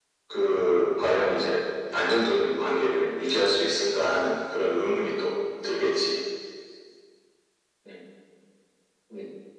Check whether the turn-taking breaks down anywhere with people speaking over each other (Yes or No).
No